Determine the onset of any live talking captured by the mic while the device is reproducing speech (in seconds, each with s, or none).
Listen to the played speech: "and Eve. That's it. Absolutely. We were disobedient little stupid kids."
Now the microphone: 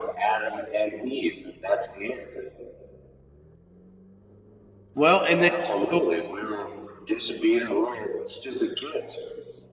5.0 s